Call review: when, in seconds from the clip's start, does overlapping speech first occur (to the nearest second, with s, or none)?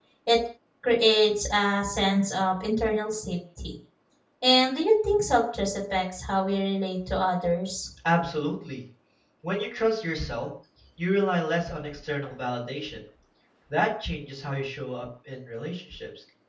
none